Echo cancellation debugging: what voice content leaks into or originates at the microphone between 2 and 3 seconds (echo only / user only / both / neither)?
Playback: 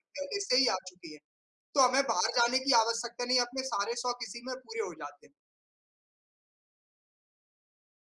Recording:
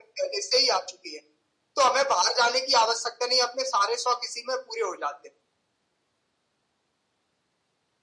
echo only